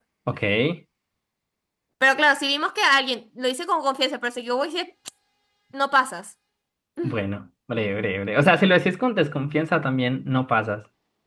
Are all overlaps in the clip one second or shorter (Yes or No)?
Yes